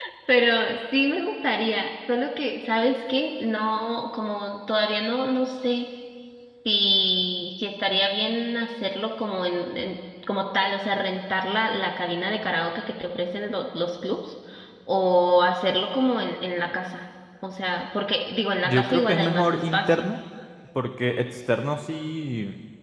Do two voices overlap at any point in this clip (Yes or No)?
Yes